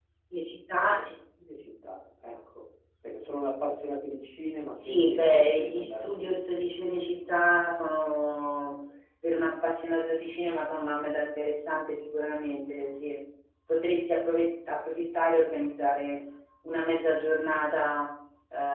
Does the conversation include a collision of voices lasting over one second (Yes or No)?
Yes